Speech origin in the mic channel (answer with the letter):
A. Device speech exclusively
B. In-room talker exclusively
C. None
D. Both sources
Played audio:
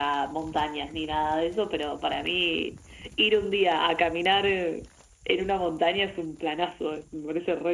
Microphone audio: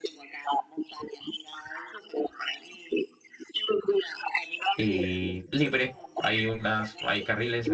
D